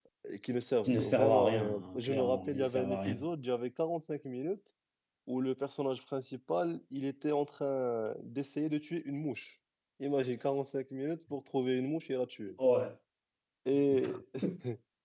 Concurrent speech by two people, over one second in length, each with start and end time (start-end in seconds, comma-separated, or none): 0.8-3.2